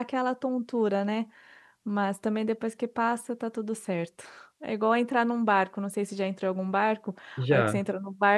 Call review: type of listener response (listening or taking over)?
listening